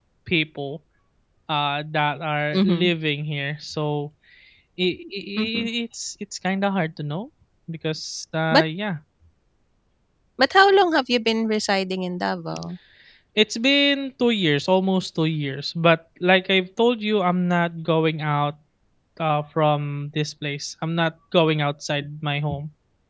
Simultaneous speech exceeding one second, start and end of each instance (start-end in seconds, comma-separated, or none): none